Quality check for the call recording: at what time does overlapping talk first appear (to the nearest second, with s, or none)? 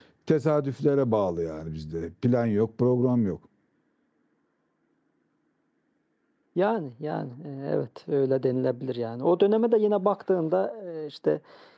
none